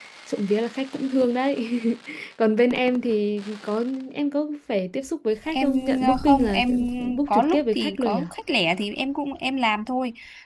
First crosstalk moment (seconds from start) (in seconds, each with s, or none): 5.5 s